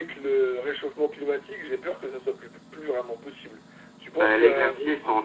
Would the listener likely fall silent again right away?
No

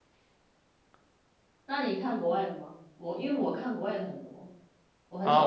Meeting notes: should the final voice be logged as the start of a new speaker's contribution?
Yes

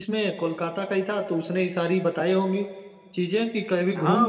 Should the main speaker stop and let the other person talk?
Yes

